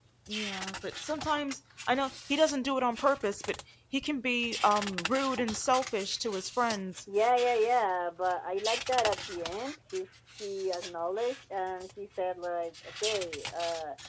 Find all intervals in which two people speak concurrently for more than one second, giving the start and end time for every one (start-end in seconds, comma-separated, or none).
none